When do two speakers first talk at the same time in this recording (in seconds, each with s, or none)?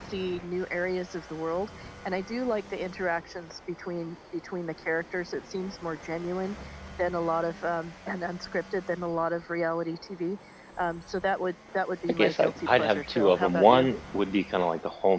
12.0 s